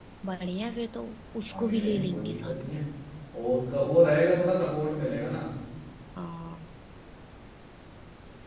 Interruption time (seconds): 1.5 s

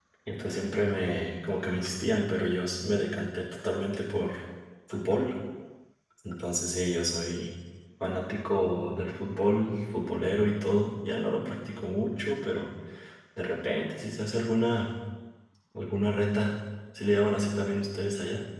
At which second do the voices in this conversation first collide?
none

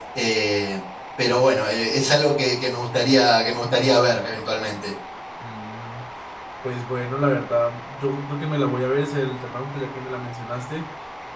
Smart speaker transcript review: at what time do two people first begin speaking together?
none

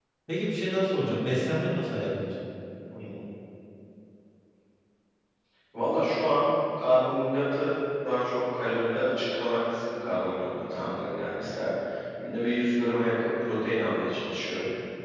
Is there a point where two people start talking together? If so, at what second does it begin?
none

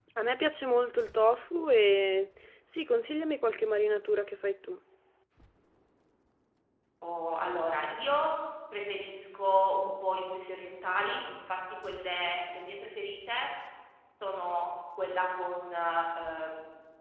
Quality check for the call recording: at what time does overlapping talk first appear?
none

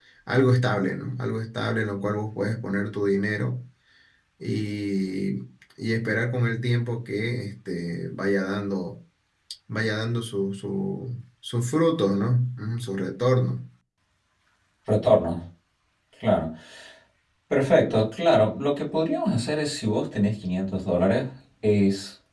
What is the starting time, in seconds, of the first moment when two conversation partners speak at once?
none

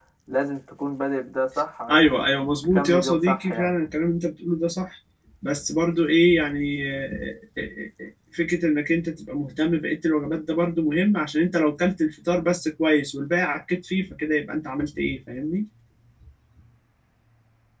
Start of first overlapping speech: 1.9 s

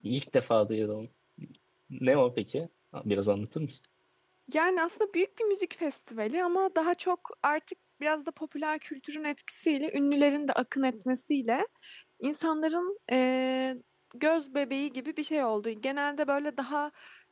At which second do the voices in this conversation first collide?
none

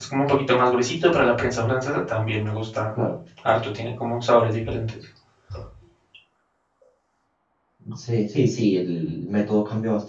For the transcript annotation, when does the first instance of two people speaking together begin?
none

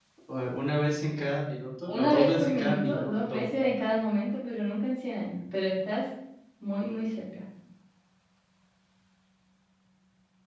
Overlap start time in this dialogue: 1.9 s

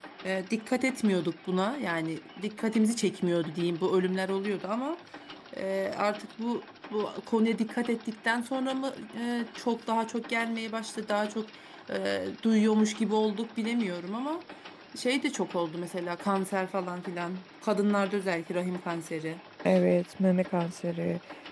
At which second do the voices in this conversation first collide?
none

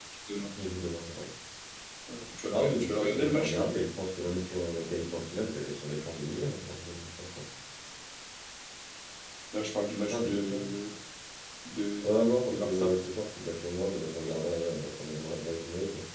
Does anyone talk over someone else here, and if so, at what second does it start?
2.5 s

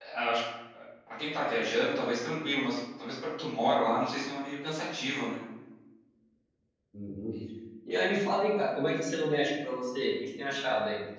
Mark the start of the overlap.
none

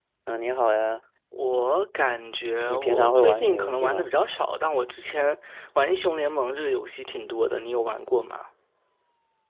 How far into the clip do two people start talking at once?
2.7 s

